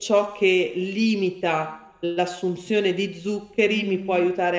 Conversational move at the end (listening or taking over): listening